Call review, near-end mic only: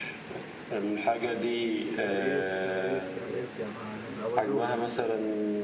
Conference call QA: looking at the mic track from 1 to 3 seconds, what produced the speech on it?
both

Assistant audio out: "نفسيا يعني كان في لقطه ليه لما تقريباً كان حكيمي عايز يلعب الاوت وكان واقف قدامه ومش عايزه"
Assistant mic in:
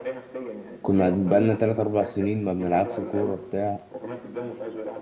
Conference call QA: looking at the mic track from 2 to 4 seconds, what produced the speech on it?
both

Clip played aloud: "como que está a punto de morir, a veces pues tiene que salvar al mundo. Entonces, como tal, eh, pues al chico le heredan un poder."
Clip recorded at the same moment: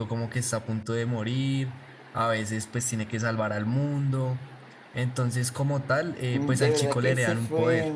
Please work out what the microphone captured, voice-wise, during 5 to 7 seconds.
both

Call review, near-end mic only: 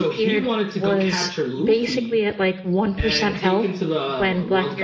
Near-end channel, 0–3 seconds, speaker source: both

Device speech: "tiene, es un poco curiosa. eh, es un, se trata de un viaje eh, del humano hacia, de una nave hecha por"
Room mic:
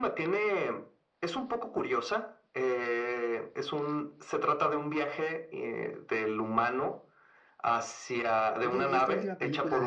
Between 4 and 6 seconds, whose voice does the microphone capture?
echo only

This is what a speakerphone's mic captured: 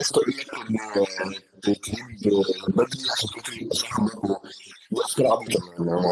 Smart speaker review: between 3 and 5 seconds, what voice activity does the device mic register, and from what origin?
echo only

